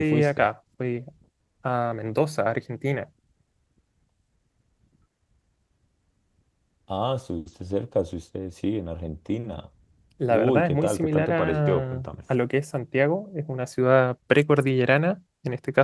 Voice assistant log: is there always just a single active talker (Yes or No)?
No